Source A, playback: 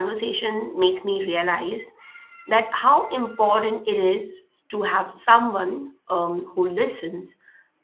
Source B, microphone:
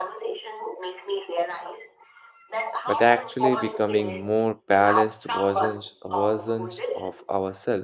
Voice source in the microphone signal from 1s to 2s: echo only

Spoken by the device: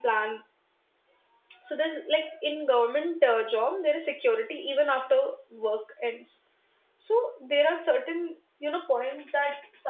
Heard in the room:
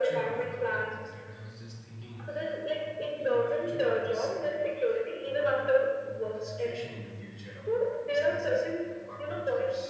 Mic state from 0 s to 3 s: both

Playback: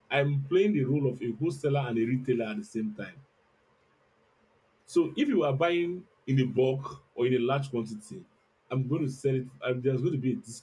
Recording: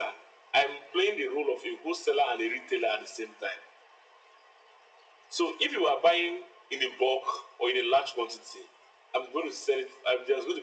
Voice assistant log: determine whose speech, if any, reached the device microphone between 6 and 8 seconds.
echo only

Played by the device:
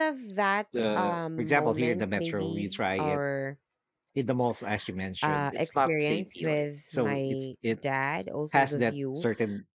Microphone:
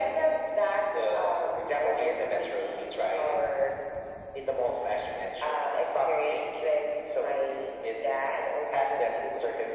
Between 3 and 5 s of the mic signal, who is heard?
echo only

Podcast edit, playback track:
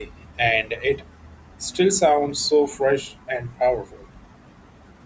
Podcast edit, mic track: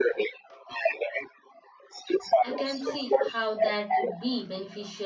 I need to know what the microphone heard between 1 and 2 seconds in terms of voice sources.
echo only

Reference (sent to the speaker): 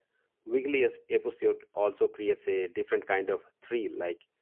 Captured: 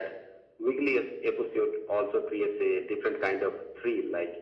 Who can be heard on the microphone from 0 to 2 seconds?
echo only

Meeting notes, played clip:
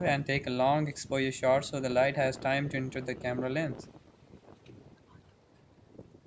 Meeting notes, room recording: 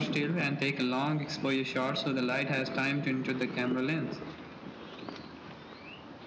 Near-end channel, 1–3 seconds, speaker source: echo only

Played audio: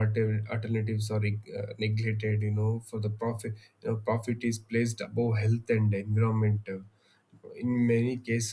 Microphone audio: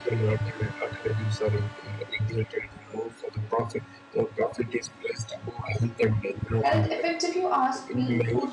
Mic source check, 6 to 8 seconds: both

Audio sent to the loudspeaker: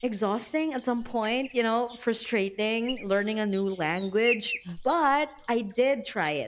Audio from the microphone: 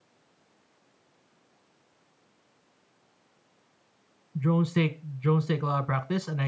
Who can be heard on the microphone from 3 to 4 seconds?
neither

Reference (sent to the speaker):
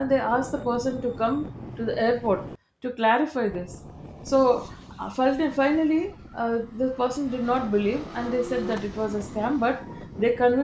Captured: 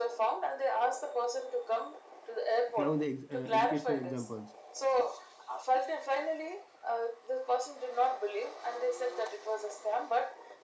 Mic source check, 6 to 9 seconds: echo only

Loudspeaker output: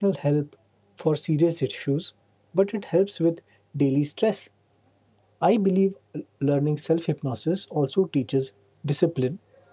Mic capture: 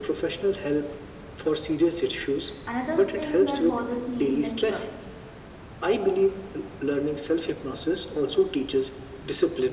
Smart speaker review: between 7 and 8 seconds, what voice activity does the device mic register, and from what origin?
echo only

